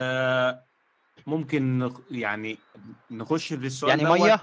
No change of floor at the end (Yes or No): No